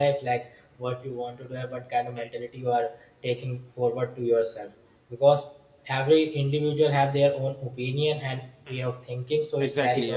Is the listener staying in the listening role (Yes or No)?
No